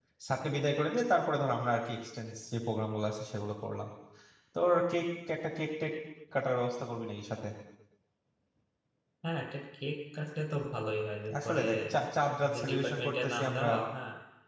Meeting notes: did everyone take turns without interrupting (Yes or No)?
No